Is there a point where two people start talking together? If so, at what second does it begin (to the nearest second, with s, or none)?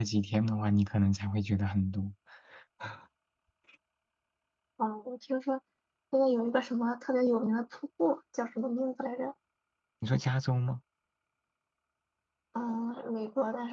none